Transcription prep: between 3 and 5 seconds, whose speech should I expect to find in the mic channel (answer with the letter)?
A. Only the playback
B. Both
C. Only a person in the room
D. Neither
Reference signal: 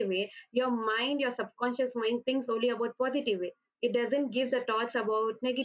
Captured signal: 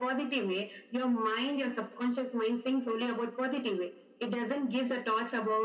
A